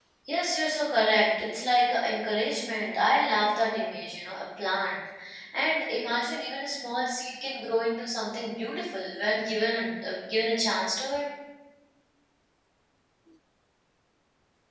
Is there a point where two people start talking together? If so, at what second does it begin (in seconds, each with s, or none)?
none